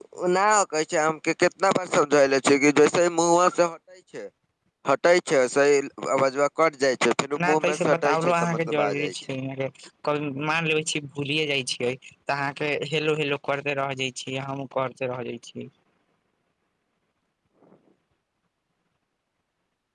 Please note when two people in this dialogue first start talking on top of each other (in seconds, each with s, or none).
7.4 s